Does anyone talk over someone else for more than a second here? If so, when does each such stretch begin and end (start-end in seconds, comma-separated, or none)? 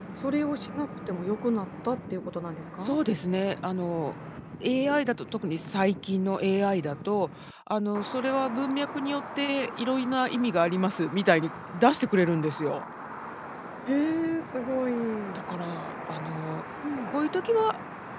none